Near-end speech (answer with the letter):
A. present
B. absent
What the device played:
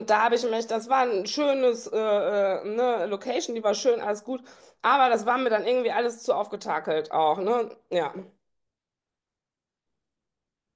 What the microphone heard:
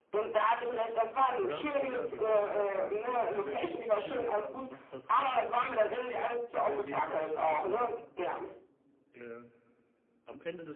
A